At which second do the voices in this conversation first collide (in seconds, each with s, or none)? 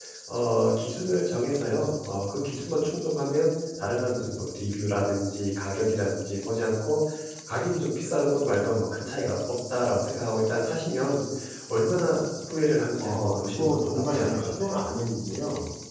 13.0 s